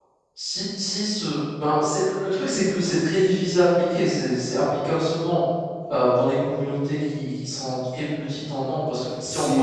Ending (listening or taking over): taking over